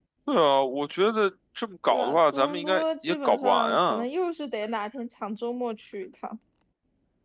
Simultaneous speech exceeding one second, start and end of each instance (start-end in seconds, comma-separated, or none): 1.9-4.0